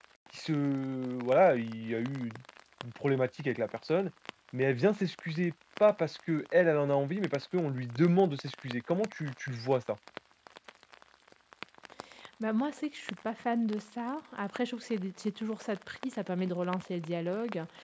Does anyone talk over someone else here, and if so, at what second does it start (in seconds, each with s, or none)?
none